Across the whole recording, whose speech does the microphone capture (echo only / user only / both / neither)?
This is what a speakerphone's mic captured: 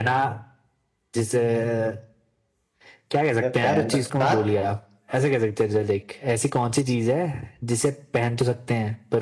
both